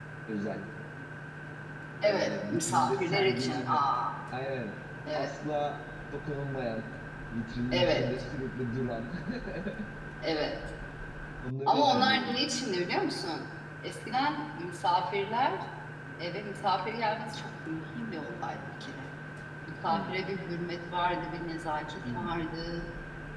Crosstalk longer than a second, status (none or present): present